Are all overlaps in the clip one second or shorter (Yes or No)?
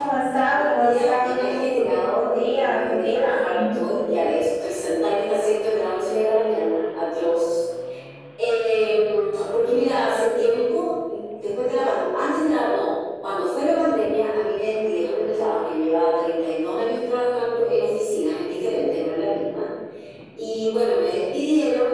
No